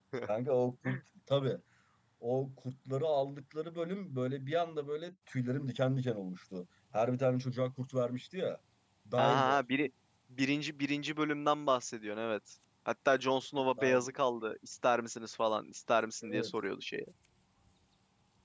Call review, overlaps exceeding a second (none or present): none